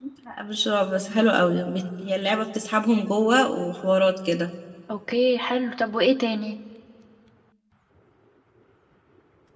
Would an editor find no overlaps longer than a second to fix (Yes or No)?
Yes